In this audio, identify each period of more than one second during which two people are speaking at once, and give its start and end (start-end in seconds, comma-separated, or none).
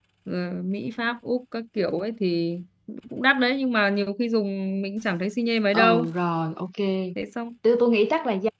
none